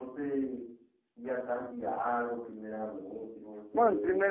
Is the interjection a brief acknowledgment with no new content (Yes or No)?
No